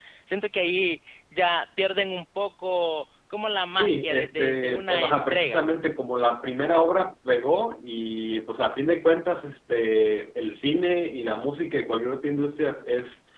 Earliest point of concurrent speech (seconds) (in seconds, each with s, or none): 3.7 s